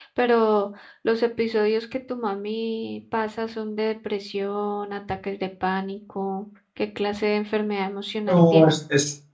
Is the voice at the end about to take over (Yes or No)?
Yes